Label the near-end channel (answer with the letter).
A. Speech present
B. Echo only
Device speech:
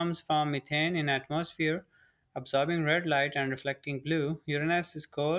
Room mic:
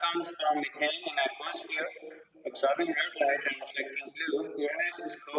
B